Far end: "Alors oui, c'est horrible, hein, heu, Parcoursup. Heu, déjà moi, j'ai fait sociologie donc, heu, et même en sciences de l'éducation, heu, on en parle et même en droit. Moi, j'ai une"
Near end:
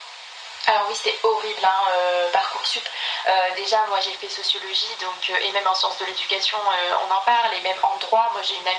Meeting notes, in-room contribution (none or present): none